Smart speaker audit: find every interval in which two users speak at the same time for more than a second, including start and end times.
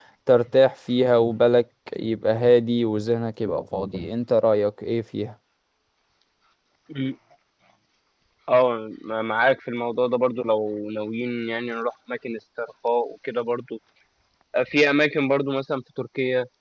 none

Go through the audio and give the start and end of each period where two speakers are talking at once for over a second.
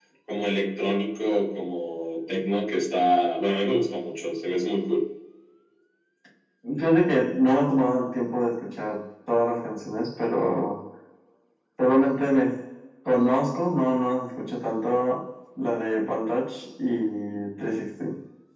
none

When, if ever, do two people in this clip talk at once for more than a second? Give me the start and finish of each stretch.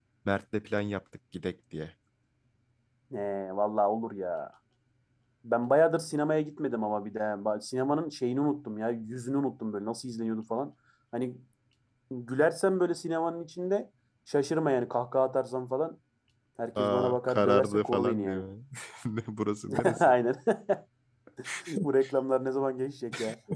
16.8-18.4

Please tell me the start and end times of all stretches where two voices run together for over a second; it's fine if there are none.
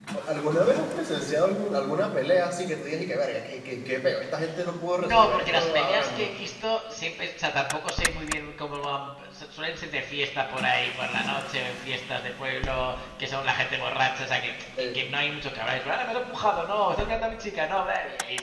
5.0-6.3

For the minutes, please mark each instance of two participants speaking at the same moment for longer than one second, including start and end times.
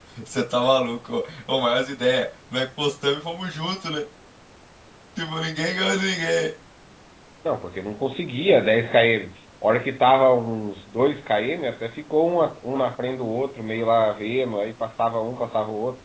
none

